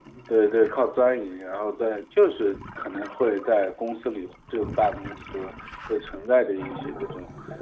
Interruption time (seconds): none

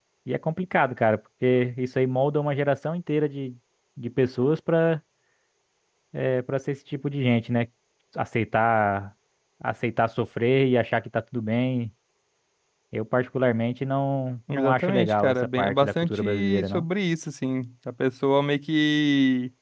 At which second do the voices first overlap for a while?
14.5 s

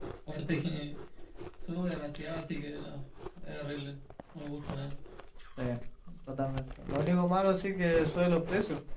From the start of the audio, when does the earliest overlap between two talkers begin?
none

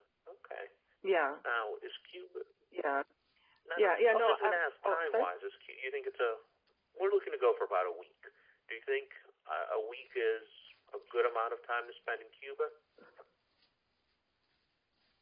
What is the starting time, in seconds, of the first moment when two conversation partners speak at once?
3.8 s

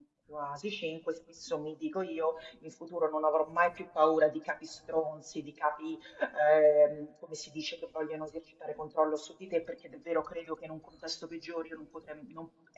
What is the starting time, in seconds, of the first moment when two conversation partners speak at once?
none

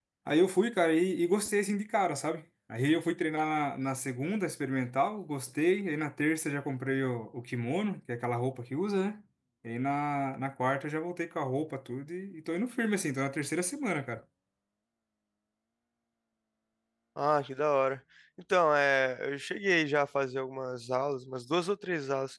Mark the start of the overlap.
none

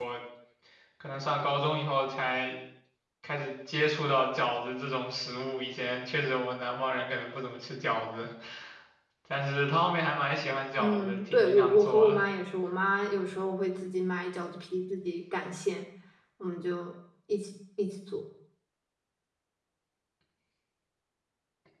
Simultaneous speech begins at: 10.8 s

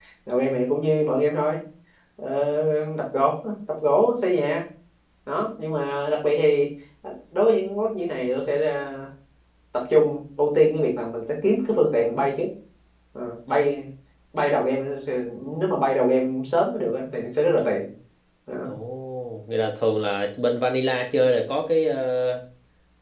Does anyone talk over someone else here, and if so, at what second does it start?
none

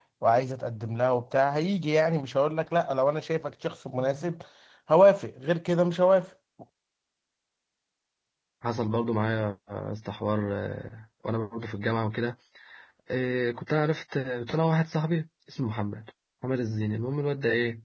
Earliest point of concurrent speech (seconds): none

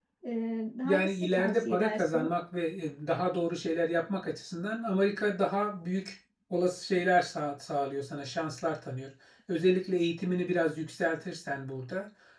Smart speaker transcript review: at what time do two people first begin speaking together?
0.8 s

